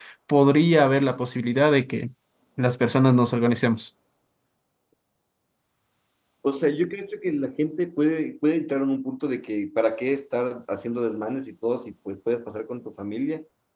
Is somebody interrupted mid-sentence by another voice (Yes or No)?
No